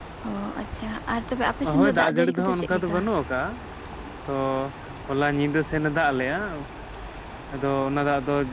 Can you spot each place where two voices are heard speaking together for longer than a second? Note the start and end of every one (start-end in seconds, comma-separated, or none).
1.8-3.0